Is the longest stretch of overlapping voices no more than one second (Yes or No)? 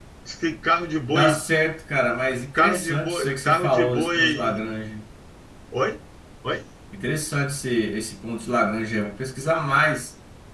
No